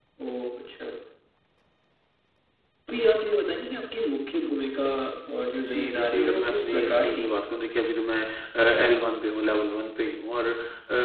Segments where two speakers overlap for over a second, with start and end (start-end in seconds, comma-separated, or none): 5.6-7.3